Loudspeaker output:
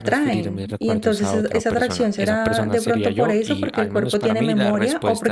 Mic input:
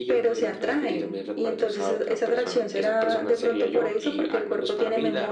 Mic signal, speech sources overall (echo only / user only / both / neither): echo only